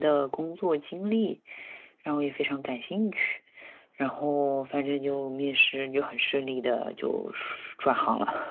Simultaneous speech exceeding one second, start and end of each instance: none

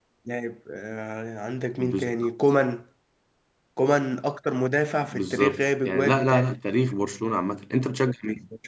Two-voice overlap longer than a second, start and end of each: 5.0-6.5

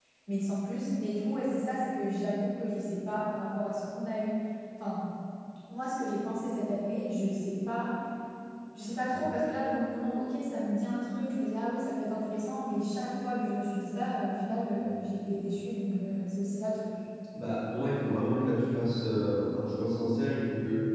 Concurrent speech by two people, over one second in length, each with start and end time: none

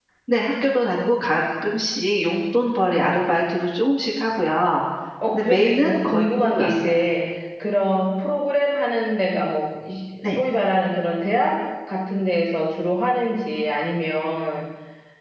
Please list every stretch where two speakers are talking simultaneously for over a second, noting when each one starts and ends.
5.3-7.0

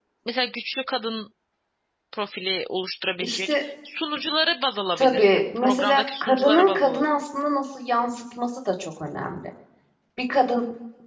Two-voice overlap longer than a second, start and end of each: 5.0-7.3

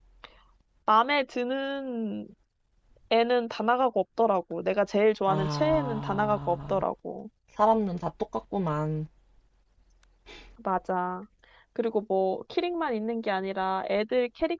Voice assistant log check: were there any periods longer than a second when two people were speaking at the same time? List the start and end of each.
5.3-6.8

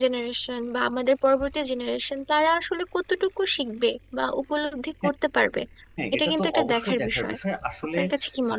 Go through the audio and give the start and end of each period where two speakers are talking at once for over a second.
6.1-7.3

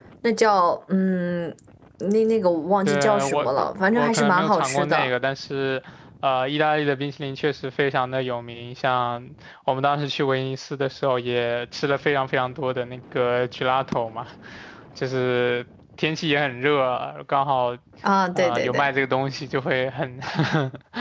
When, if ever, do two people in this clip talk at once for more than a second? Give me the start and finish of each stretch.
2.9-5.1

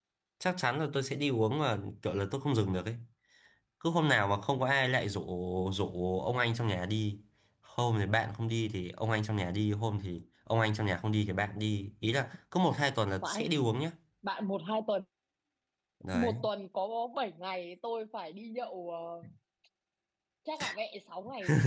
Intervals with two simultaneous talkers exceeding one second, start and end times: none

